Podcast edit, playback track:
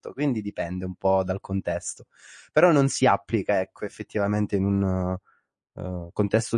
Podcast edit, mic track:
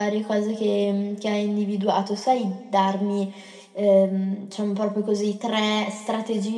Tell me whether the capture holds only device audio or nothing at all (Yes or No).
No